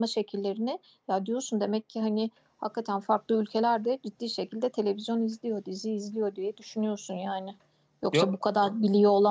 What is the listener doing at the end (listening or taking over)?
listening